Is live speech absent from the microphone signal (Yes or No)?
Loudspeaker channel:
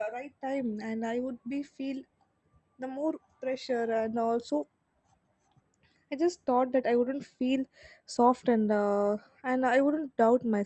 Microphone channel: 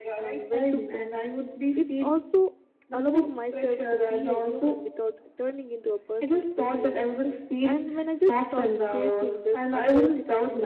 No